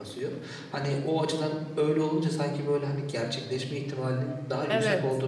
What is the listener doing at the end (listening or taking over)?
listening